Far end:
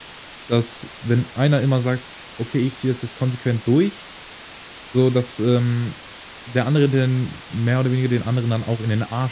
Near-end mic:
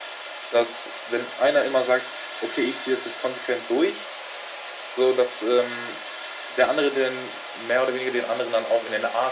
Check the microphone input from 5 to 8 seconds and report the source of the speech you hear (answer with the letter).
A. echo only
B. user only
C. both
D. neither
A